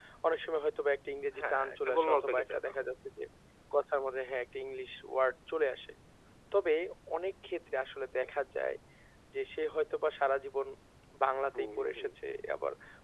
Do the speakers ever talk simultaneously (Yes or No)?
Yes